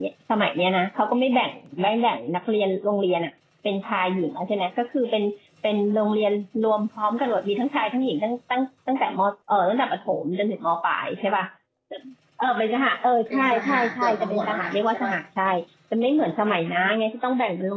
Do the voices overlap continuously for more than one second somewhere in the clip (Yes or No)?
Yes